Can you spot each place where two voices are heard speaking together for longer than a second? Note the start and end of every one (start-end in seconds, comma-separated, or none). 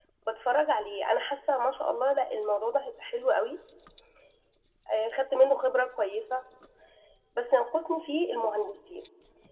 none